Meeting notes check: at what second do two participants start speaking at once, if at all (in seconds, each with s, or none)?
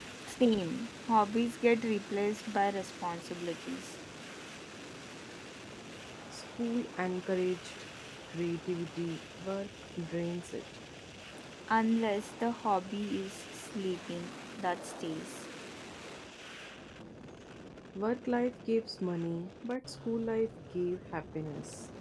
none